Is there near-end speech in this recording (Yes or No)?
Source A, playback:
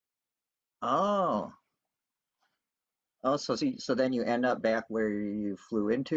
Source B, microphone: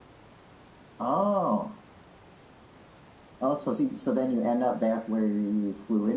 No